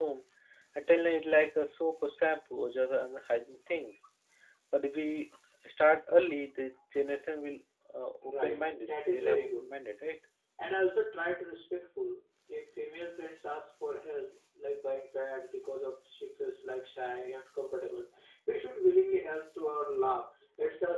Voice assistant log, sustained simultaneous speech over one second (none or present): present